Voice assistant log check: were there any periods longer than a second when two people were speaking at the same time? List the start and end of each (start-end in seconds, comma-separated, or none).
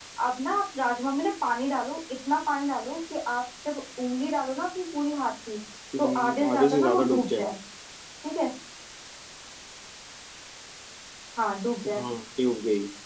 6.0-7.4